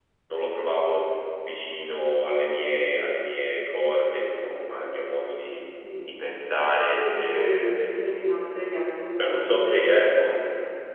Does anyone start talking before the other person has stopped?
Yes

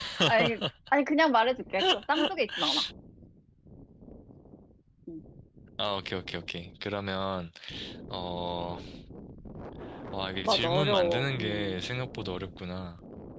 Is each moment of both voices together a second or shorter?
No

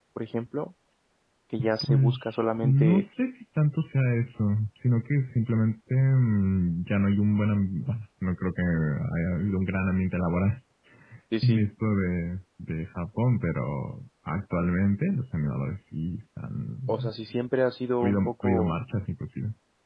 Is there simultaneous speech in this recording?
Yes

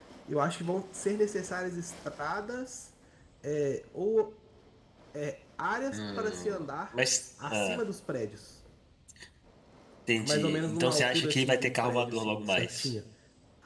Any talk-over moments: Yes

